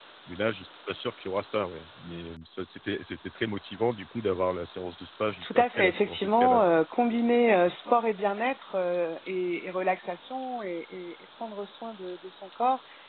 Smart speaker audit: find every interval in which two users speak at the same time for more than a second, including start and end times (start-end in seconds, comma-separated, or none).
5.4-6.6